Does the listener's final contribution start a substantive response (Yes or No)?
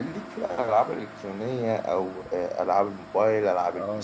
Yes